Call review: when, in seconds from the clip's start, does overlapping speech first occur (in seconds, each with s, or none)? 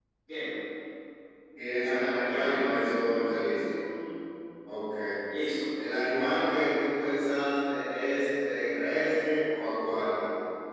1.8 s